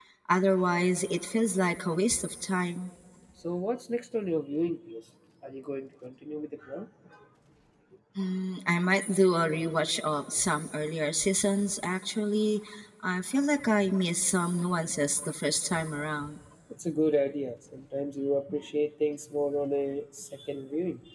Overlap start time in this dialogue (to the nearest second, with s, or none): none